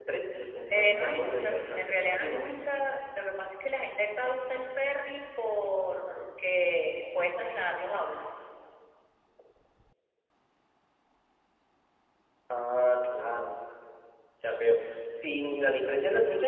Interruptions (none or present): present